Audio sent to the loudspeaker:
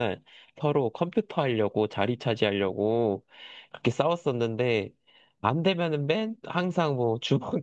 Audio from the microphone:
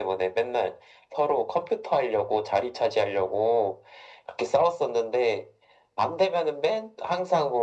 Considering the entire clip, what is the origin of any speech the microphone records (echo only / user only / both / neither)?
echo only